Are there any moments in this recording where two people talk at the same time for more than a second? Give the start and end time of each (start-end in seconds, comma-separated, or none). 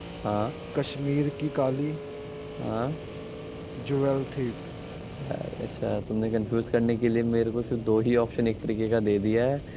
none